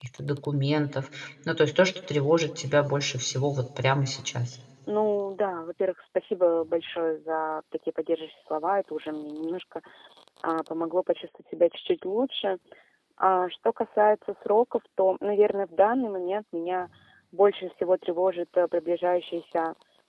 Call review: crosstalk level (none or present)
none